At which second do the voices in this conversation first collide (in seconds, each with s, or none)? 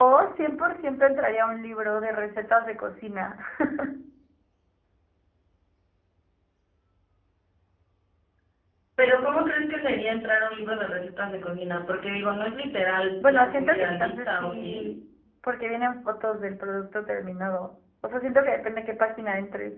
13.2 s